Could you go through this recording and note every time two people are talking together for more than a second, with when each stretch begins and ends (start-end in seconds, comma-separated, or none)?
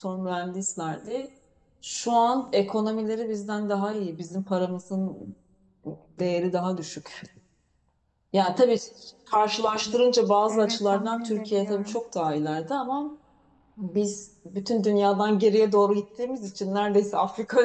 10.5-12.0